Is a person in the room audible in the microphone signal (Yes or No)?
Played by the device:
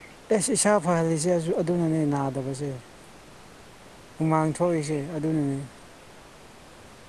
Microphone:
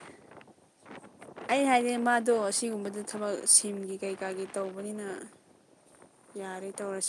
Yes